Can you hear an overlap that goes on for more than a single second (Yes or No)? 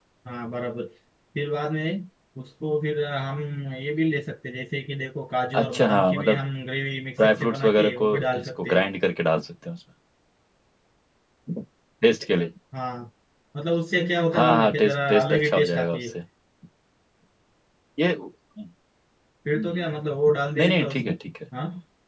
Yes